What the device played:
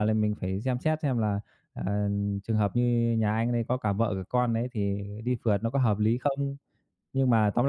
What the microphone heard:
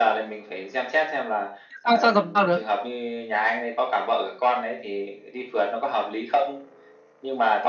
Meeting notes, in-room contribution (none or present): present